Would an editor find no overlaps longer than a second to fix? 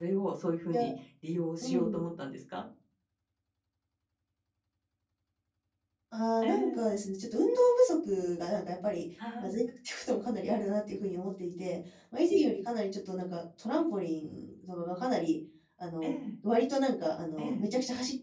Yes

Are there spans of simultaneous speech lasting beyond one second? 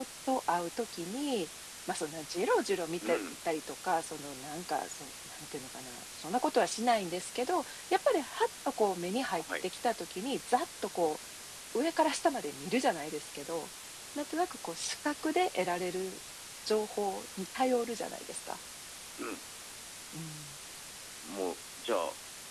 No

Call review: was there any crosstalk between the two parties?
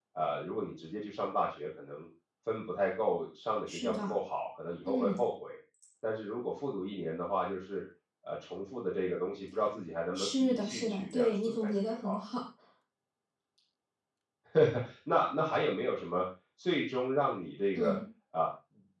Yes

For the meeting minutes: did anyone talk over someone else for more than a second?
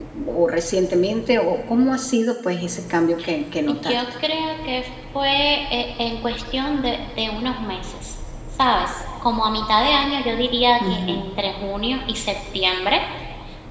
No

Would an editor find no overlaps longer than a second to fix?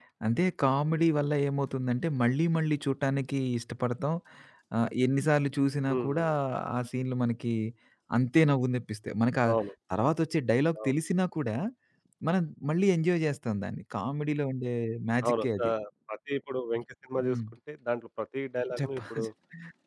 Yes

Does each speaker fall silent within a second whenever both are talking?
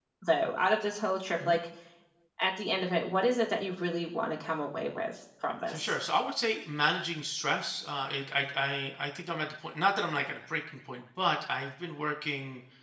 Yes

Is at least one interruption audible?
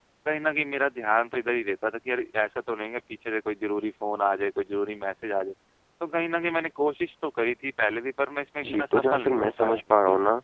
Yes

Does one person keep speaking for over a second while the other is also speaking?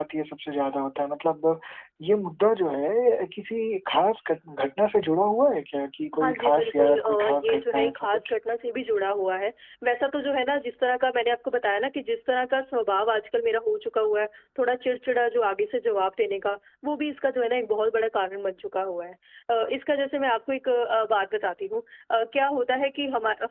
Yes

